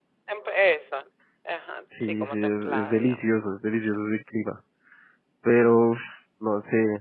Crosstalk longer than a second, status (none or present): present